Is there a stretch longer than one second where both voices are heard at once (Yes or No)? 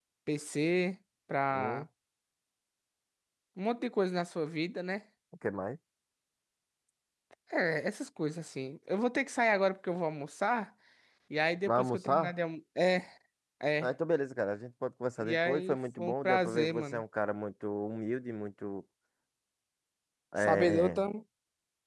Yes